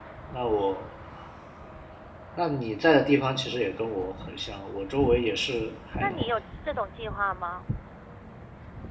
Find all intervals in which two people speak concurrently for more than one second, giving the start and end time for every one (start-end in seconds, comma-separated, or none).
none